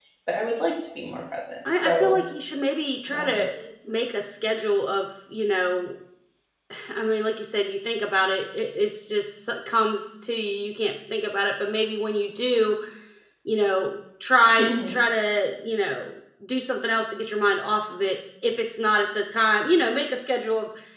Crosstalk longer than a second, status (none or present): none